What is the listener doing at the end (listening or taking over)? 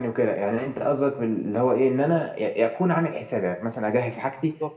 listening